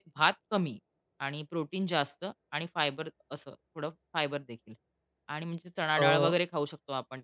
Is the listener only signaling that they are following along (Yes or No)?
Yes